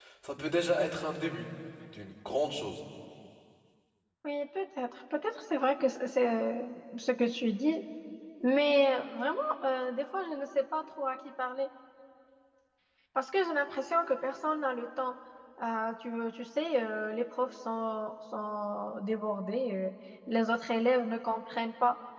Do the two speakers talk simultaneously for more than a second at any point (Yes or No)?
No